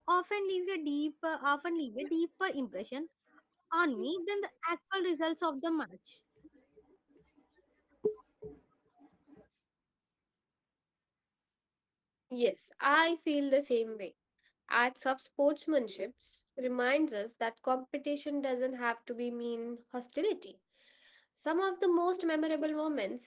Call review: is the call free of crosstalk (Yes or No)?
Yes